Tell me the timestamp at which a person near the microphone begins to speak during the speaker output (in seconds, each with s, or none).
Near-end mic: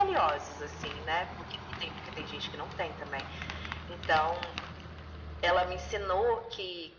none